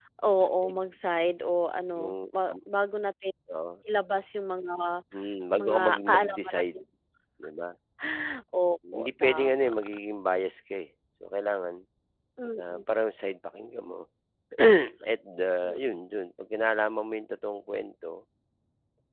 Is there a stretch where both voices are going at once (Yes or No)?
Yes